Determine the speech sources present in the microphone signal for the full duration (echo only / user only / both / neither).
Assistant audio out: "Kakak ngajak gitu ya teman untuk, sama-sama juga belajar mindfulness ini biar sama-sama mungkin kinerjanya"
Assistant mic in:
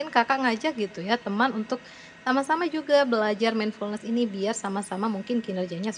echo only